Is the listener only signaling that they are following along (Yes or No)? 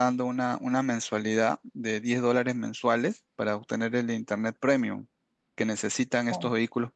Yes